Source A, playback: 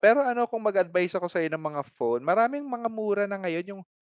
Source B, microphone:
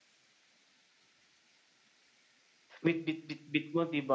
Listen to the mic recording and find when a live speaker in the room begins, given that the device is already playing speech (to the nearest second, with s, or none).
3 s